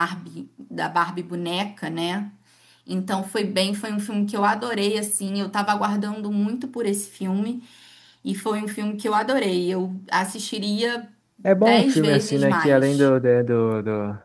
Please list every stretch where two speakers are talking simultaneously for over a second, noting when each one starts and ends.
11.4-13.1

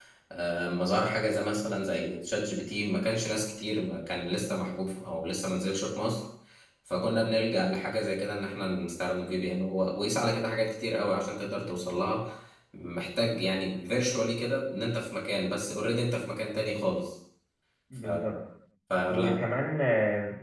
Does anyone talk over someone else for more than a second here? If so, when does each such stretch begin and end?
none

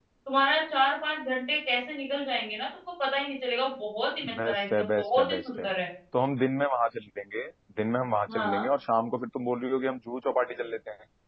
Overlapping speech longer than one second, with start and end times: 4.4-5.7

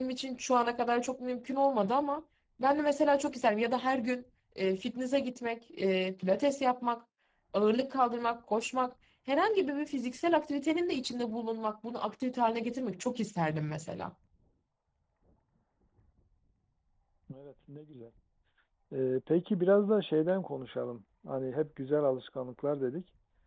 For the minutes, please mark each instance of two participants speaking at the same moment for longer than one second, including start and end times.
none

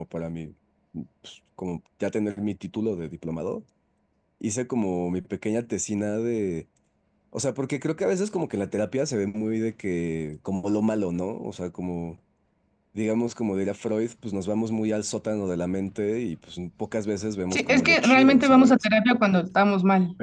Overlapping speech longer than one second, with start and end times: 17.5-18.8

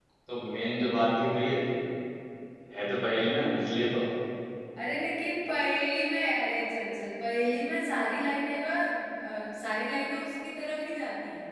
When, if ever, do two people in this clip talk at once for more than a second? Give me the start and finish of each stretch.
none

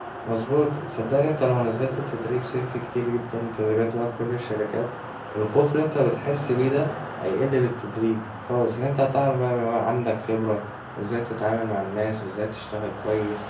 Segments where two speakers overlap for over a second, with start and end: none

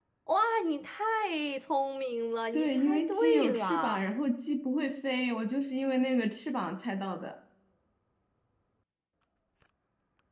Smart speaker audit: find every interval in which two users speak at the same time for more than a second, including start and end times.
2.5-4.0

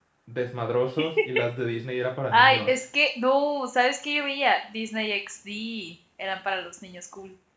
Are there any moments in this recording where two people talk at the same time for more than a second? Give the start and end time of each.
none

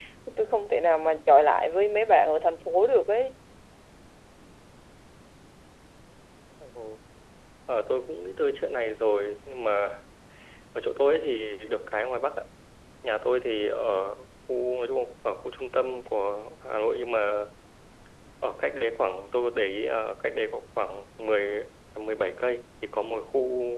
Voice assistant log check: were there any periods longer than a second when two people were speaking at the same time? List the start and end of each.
none

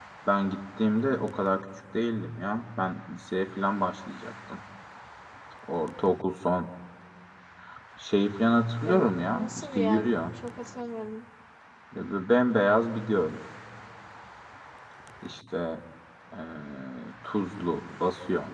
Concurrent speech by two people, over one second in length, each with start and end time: 8.8-10.1

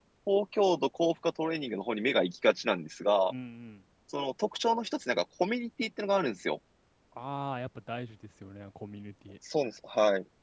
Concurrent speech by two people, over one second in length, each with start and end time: none

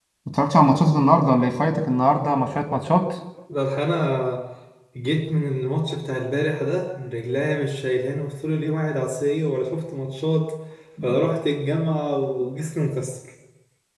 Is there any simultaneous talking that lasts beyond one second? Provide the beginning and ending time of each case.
none

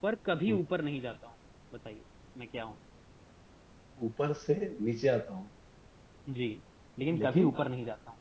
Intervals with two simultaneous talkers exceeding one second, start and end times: none

